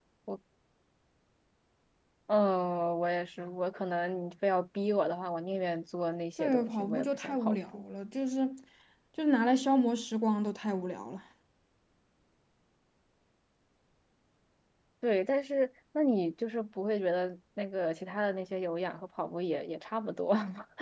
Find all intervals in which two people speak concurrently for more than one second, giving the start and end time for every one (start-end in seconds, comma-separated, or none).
6.4-7.8